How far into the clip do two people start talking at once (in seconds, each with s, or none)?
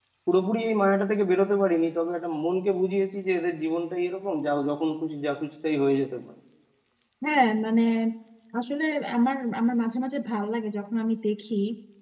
none